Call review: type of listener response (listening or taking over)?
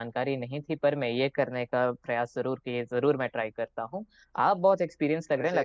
listening